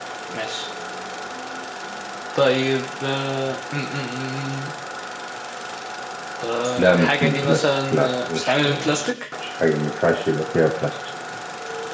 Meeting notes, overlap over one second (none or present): present